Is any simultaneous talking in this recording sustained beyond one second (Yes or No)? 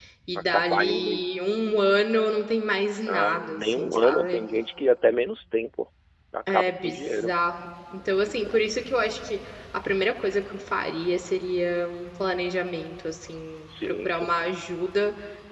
Yes